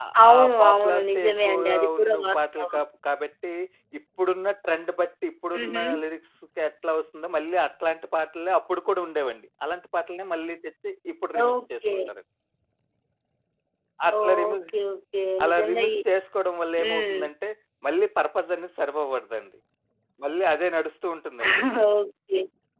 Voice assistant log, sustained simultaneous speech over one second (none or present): present